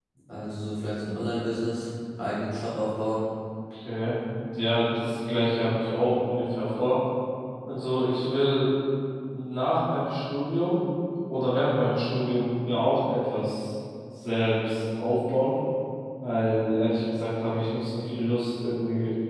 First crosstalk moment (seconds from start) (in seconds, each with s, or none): none